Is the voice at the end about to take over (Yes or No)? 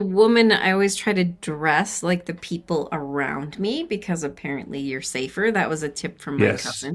Yes